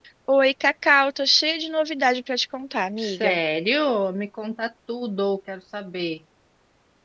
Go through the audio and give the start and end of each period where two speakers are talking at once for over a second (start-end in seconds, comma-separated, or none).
none